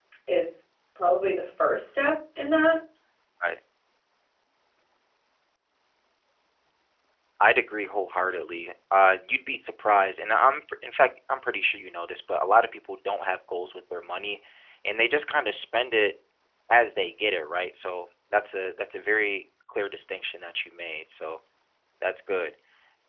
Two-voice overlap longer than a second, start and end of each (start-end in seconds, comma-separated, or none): none